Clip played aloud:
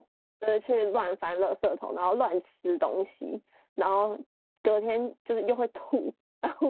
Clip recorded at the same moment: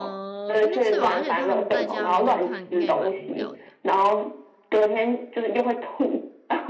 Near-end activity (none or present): present